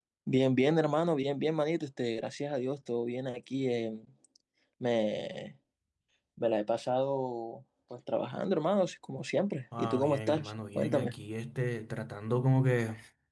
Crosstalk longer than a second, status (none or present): present